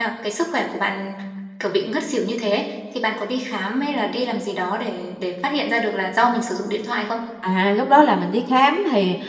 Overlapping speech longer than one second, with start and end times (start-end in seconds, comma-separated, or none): none